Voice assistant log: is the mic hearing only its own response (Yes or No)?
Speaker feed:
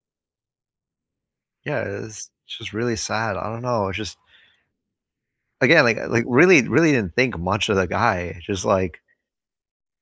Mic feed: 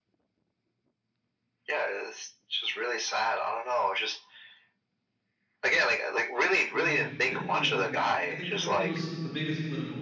No